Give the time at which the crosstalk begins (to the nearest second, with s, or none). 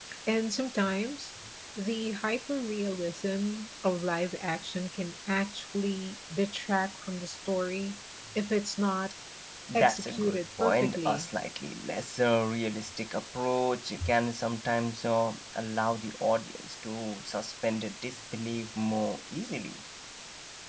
10 s